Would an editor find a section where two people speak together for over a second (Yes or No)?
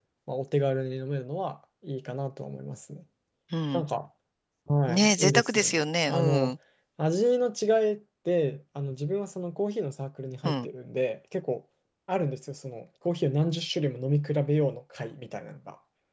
Yes